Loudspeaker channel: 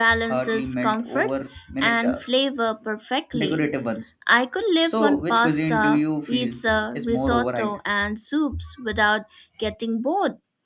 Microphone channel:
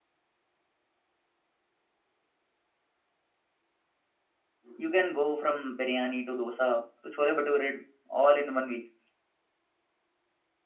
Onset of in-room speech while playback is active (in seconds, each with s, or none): 4.8 s